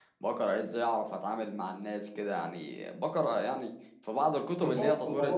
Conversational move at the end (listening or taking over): taking over